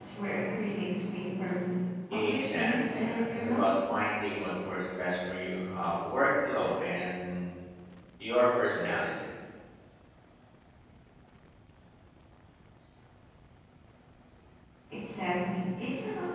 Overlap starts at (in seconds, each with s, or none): 2.1 s